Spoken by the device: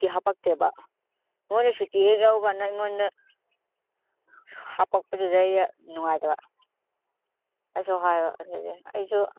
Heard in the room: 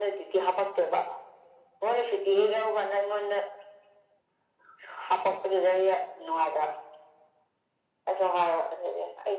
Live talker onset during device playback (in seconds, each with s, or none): none